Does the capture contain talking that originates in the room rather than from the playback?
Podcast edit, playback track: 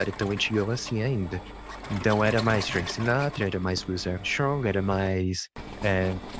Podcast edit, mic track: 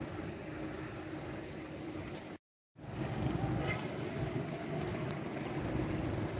No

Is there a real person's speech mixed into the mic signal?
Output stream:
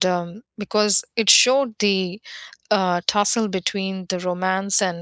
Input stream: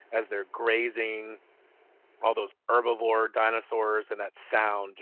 Yes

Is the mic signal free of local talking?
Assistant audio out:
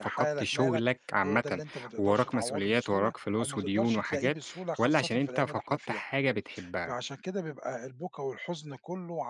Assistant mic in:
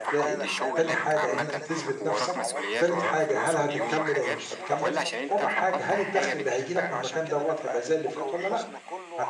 No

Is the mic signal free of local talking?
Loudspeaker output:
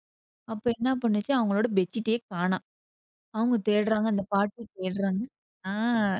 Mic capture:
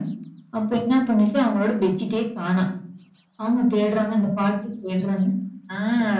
Yes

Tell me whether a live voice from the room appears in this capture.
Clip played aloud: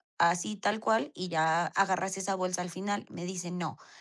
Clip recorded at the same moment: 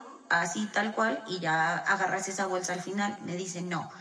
No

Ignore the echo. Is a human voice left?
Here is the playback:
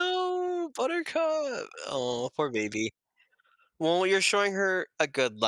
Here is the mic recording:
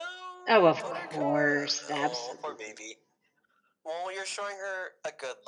Yes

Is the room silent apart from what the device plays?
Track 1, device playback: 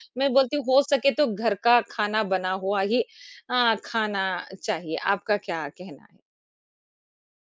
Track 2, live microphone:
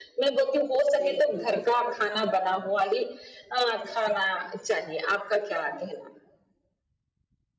No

